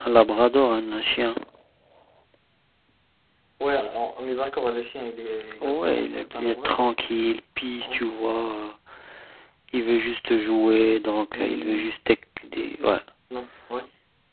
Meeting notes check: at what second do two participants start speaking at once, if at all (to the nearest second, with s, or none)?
6 s